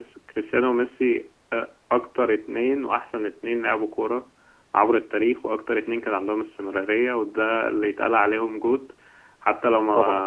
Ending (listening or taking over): listening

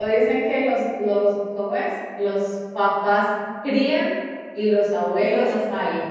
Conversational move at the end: taking over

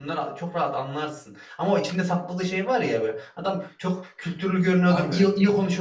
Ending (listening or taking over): listening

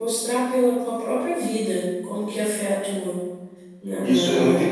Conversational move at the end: taking over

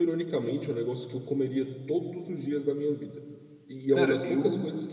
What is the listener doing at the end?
listening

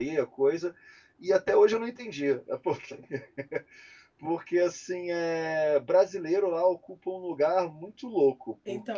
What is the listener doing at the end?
taking over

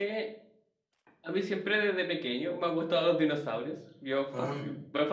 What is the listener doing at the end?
listening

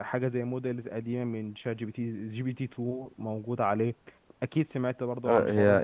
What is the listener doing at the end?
taking over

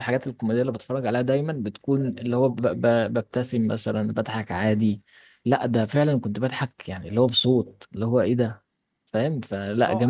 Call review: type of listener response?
taking over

